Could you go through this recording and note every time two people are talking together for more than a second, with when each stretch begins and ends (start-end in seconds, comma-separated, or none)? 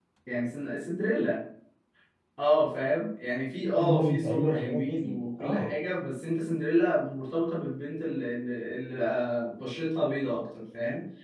3.8-5.7